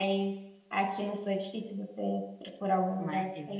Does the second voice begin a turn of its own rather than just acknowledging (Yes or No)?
Yes